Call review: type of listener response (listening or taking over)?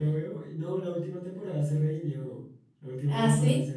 listening